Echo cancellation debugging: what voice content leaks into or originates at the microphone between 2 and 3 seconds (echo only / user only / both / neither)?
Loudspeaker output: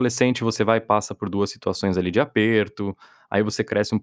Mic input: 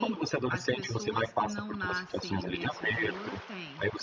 both